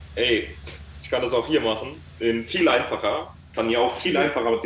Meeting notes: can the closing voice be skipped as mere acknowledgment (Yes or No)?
Yes